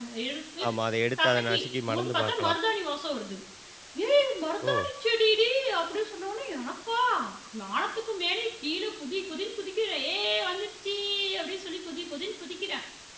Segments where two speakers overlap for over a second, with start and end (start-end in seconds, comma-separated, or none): 1.2-2.6